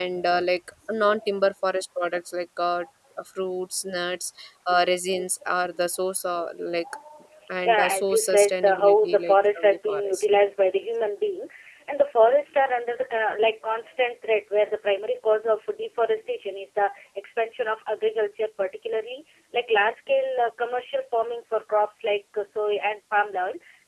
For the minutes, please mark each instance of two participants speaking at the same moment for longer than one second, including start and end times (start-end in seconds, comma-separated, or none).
7.6-10.2